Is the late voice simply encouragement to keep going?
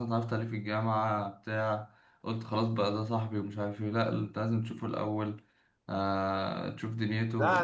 No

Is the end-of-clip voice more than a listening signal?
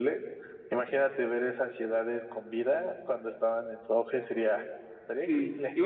Yes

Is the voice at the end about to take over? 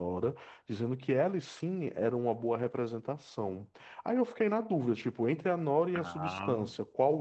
No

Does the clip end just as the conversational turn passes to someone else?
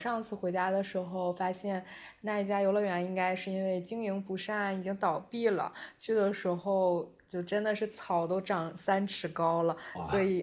No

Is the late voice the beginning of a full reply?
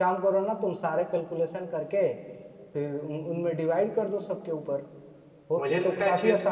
Yes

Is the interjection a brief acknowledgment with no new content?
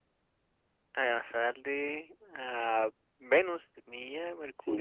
No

